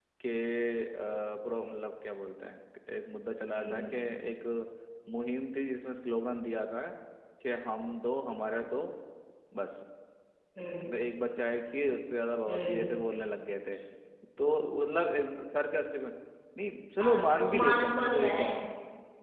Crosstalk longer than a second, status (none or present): present